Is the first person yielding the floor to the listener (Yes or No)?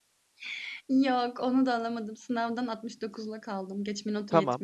Yes